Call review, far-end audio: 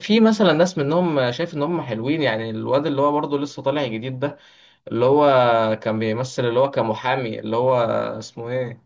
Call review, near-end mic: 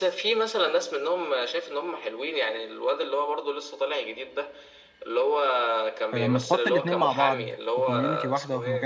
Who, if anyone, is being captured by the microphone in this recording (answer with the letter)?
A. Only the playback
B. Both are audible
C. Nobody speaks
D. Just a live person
B